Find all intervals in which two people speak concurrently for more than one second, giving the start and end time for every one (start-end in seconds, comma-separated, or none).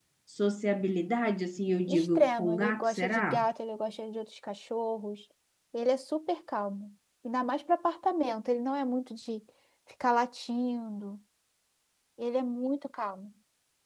1.9-3.5